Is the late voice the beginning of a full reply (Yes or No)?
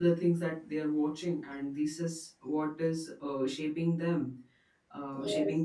No